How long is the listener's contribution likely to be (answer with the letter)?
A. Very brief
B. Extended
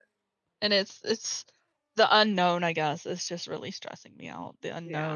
A